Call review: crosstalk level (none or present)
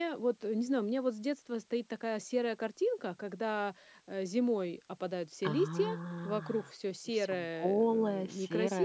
present